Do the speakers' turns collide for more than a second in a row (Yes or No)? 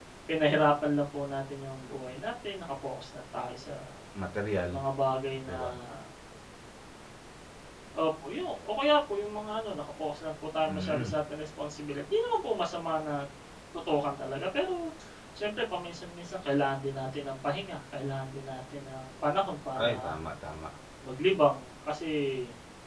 No